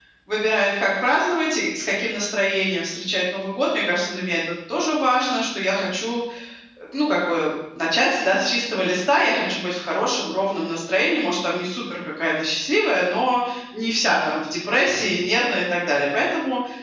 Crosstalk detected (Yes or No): No